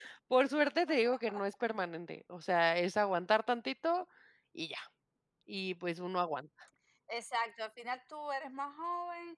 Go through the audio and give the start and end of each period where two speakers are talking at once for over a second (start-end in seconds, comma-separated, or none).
none